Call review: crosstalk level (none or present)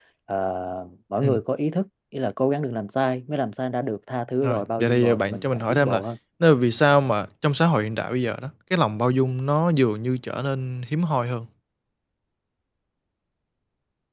present